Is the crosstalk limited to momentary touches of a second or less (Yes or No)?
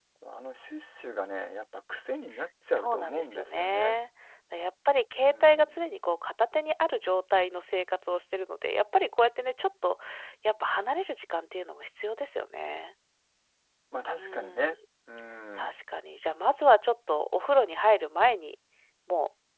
No